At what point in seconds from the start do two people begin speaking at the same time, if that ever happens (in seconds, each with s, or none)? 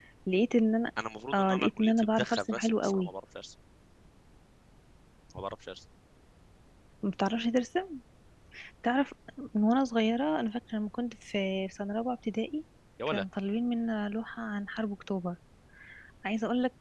1.3 s